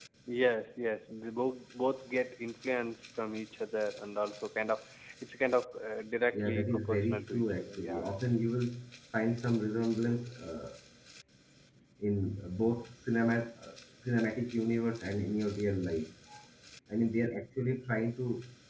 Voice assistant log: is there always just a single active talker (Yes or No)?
No